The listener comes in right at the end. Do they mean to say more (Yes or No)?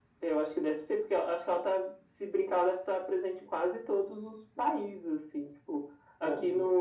No